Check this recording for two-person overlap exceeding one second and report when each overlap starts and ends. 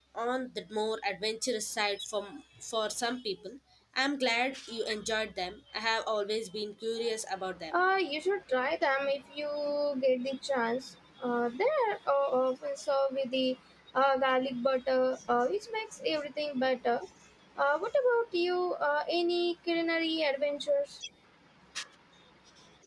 none

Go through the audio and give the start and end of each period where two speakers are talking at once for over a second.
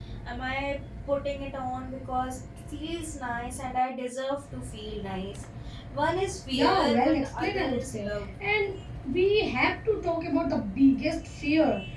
6.5-8.1

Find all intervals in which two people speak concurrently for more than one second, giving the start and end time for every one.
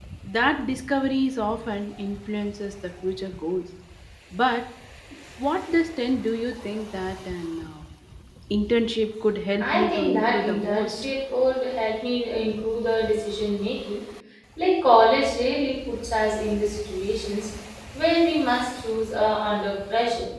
9.6-11.0

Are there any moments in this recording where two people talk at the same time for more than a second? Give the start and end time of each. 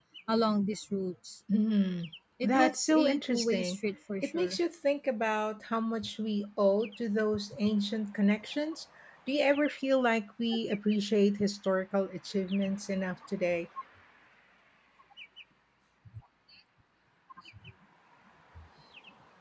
2.4-3.8

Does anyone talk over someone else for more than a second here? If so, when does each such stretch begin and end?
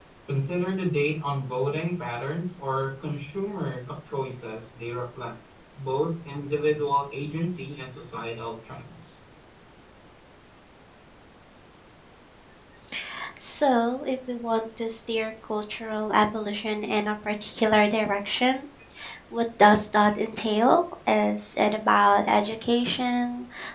none

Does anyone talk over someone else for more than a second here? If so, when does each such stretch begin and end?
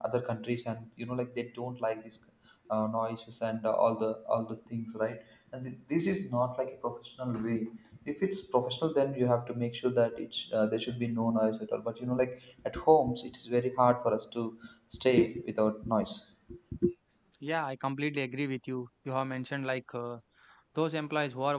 none

